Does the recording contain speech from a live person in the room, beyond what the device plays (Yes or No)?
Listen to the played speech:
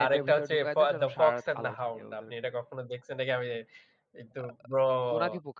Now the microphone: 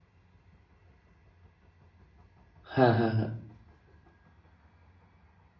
Yes